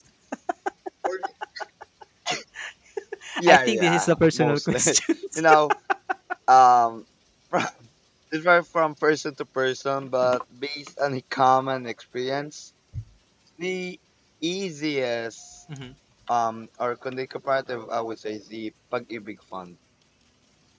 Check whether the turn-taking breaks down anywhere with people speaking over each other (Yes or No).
Yes